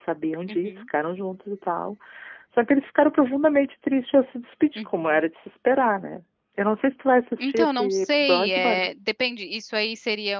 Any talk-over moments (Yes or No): Yes